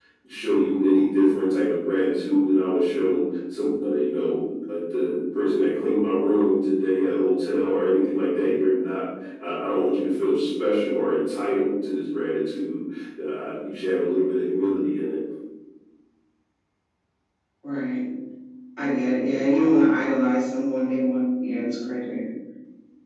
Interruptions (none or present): none